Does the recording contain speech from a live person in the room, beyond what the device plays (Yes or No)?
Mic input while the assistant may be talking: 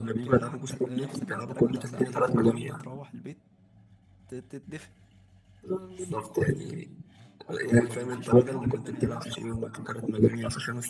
Yes